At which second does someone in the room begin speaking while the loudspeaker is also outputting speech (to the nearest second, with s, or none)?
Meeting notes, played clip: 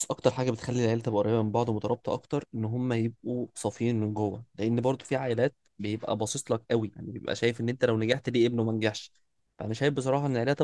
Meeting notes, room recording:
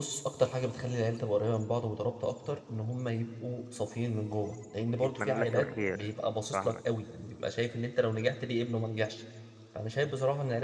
5 s